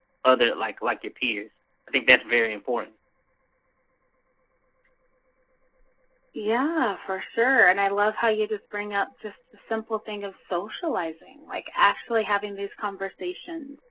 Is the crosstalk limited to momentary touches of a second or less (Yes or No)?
Yes